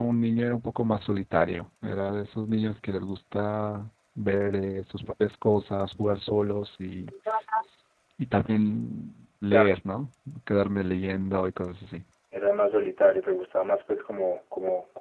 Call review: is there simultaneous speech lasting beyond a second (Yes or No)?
No